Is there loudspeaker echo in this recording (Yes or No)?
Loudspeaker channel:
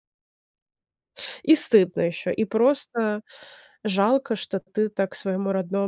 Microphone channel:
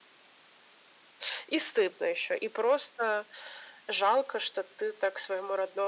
Yes